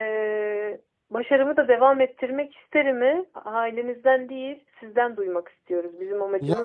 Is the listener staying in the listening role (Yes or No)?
No